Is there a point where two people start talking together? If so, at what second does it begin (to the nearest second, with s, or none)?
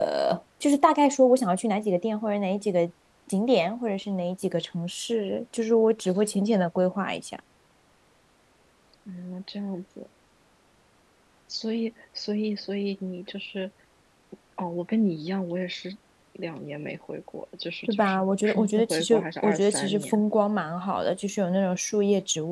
18 s